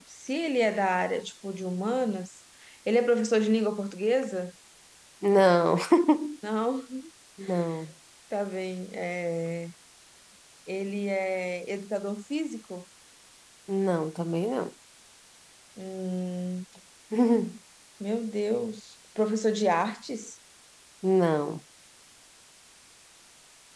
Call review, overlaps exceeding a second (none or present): none